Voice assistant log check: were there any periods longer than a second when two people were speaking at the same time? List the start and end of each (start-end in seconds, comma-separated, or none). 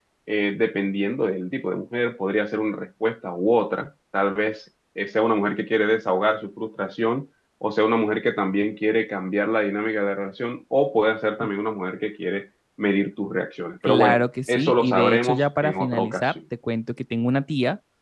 13.8-16.3